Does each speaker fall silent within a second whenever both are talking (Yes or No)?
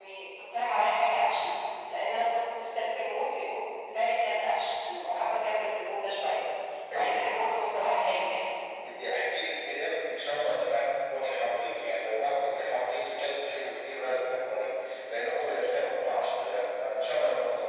Yes